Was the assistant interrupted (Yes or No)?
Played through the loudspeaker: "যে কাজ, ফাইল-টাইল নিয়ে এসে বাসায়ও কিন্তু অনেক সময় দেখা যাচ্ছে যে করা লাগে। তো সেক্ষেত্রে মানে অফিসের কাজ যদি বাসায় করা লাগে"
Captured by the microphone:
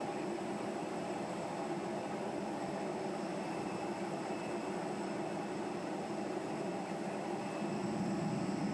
No